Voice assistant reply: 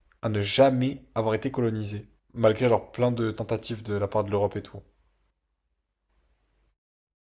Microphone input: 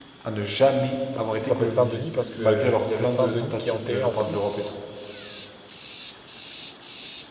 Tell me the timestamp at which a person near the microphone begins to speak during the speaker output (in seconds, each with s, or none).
1.4 s